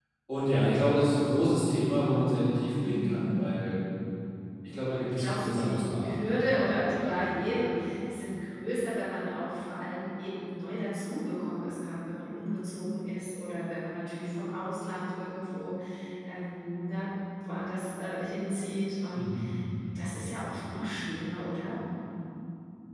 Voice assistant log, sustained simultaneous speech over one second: present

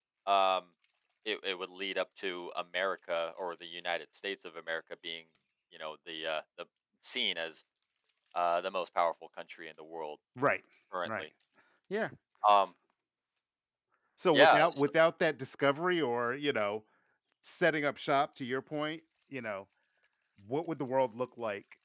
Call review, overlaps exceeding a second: none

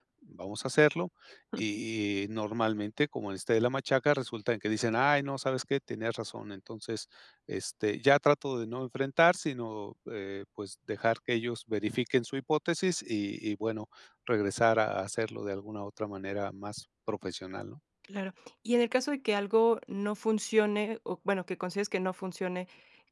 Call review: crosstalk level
none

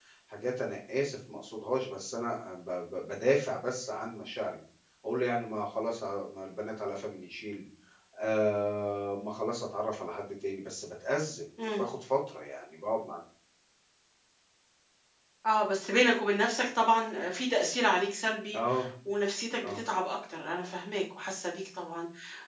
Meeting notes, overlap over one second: none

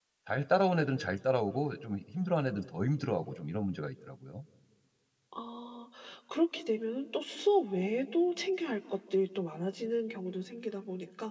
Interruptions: none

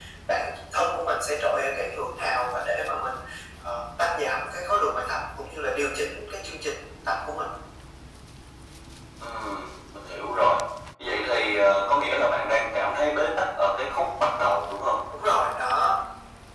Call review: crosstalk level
none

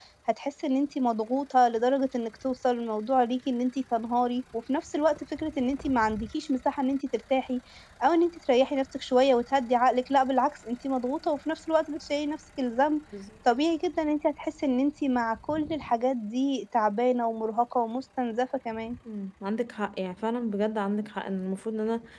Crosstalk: none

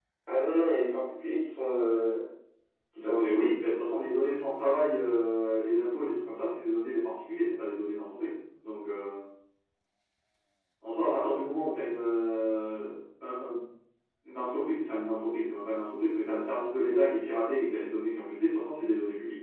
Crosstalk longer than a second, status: none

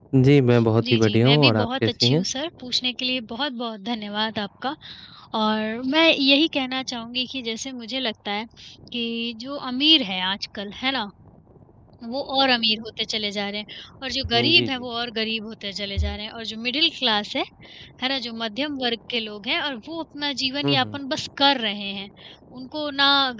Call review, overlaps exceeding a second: present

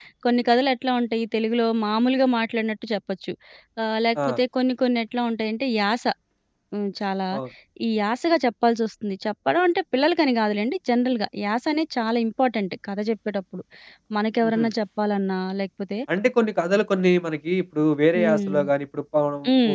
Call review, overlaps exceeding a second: none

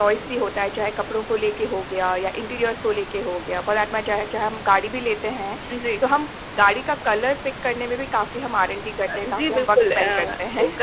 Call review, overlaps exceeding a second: present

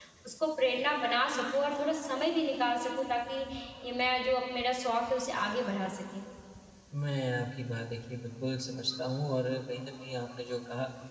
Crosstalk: none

